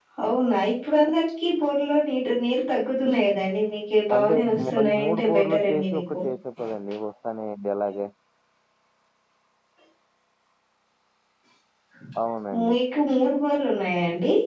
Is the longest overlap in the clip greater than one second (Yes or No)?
Yes